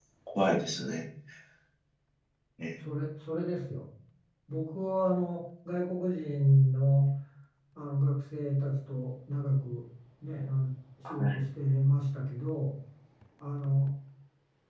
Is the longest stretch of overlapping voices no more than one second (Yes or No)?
Yes